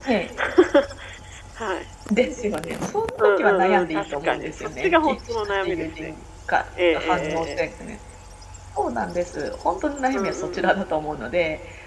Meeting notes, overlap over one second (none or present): present